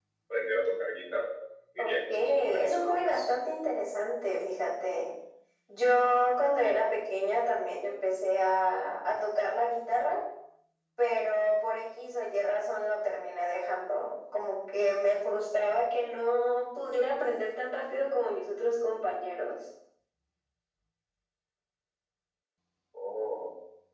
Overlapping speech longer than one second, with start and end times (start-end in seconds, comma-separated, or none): 1.8-3.3